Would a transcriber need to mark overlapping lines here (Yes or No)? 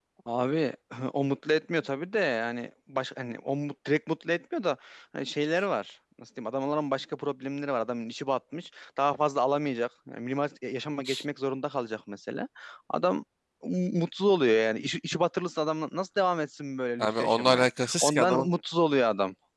Yes